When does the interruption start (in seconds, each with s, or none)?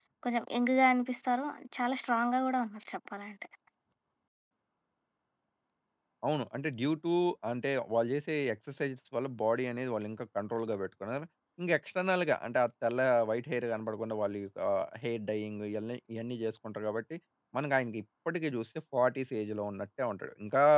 none